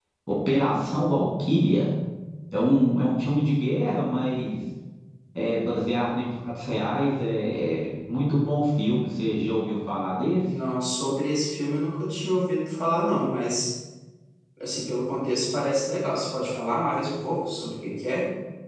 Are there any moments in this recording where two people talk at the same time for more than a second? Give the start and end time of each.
none

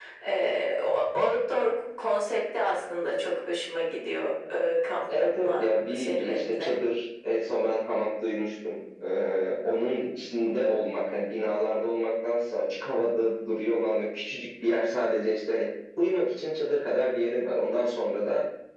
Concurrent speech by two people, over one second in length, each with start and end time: 5.1-6.7

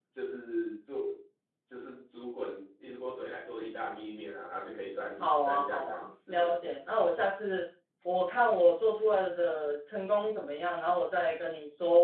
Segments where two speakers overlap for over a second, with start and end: 5.2-6.6

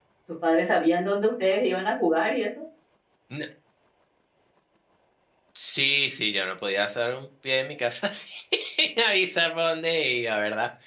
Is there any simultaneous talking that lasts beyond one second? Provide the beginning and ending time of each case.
none

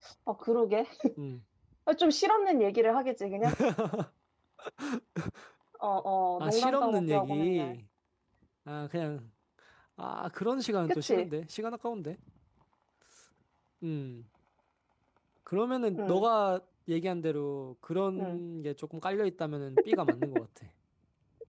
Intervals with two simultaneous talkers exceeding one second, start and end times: 6.4-7.7

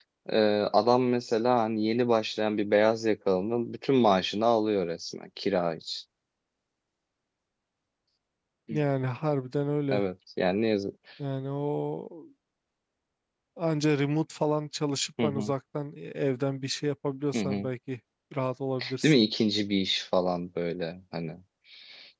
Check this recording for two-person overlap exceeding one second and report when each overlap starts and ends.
none

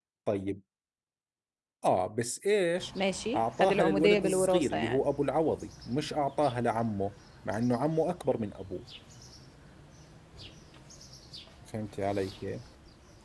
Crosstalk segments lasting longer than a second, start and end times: 3.4-5.0

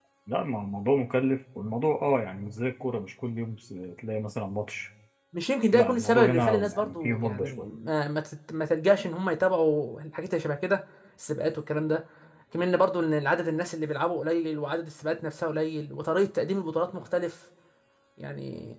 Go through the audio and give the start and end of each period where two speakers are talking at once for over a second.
5.7-7.7

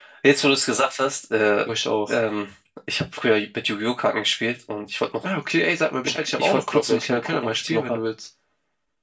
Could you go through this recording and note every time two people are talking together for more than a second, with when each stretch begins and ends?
6.0-8.0

